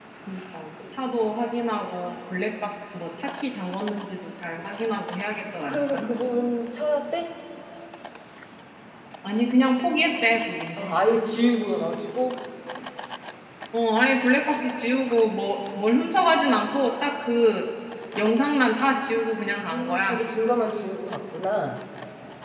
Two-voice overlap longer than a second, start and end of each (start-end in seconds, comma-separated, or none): none